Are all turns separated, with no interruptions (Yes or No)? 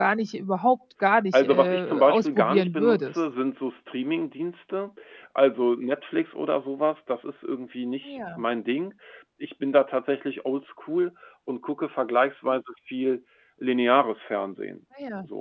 No